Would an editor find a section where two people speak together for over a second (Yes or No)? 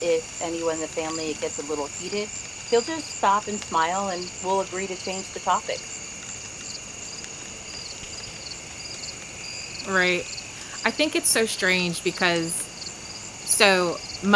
No